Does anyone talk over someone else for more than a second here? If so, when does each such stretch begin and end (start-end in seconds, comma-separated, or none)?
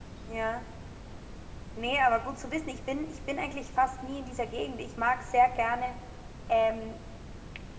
none